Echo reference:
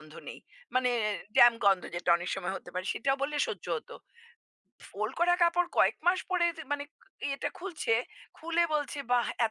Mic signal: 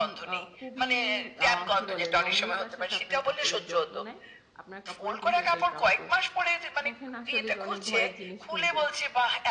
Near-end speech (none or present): present